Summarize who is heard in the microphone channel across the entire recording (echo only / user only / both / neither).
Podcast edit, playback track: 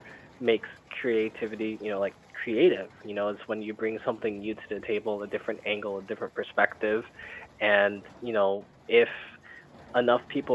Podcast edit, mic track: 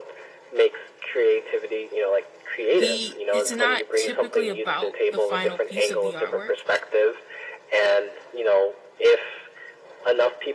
both